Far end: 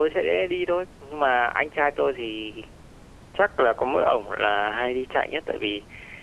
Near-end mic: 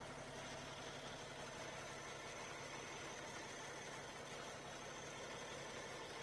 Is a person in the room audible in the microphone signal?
No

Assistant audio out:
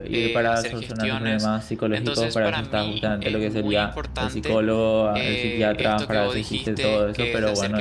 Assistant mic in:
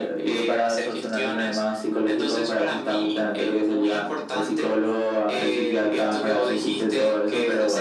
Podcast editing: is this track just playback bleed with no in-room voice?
Yes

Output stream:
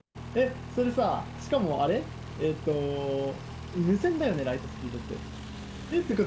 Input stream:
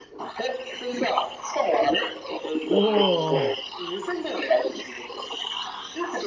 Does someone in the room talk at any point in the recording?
Yes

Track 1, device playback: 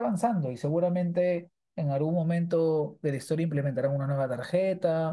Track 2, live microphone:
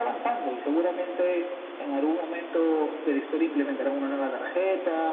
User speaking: No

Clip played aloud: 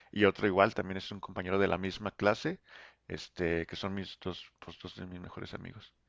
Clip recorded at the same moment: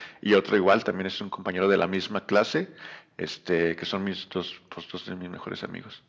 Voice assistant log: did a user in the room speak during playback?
No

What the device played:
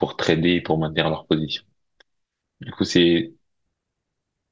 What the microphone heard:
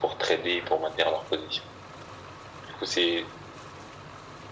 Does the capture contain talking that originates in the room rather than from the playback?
No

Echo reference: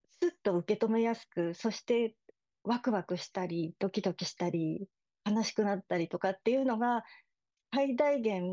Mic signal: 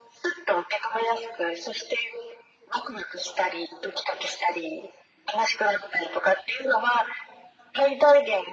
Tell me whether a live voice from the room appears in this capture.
No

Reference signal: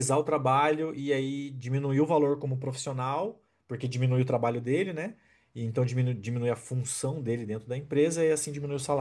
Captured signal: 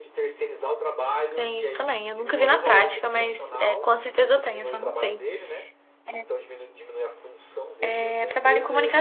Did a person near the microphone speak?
Yes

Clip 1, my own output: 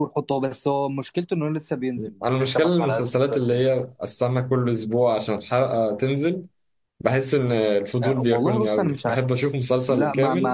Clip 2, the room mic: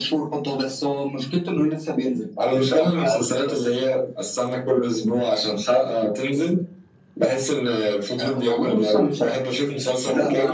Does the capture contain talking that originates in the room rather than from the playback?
No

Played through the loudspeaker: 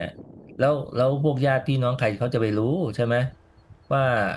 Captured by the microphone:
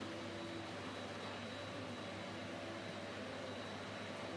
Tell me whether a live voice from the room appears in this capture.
No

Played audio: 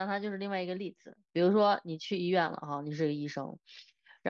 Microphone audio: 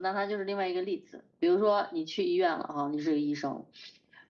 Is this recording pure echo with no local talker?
Yes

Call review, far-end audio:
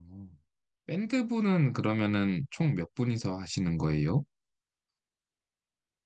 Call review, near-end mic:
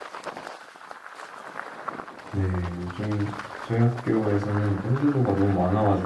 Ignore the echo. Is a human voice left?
Yes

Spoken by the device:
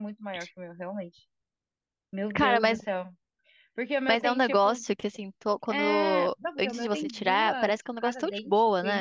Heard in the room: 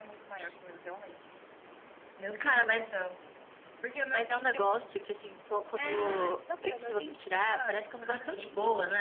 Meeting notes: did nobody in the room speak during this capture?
Yes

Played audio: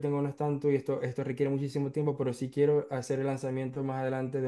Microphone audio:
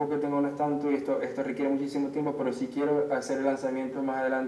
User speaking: No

